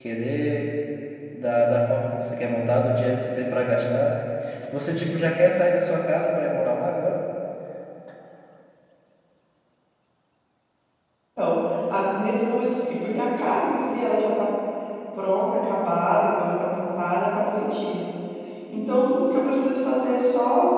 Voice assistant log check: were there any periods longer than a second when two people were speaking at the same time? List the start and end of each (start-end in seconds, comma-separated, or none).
none